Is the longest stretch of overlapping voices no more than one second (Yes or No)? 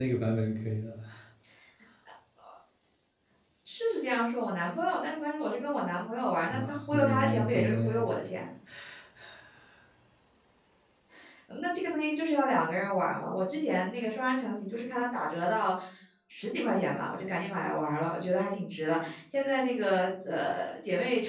No